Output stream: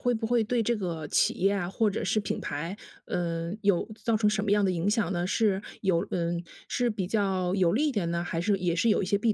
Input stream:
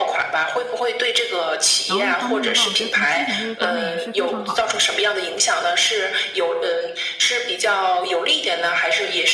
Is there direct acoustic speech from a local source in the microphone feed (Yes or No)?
Yes